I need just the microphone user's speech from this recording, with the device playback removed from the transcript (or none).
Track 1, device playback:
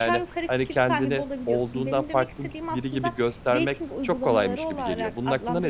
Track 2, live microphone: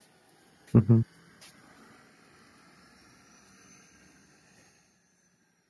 Hı hı.